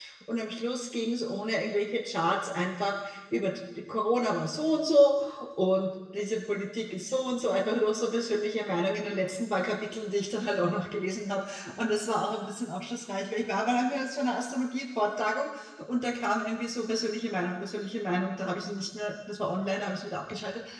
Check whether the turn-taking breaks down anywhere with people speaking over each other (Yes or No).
No